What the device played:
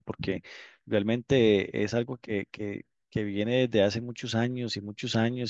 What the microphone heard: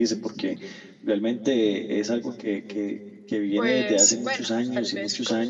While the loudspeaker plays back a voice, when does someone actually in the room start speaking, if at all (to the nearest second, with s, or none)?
4 s